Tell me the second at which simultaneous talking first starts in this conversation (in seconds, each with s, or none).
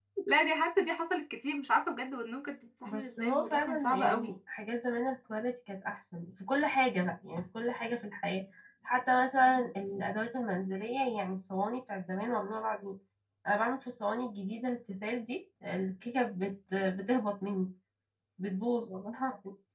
2.8 s